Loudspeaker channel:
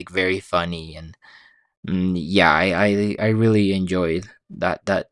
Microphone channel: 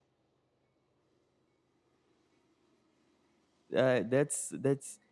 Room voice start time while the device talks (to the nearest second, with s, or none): 4 s